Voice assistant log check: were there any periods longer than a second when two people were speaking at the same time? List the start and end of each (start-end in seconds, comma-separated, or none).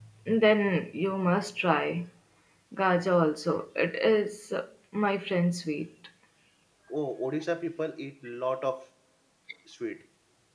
none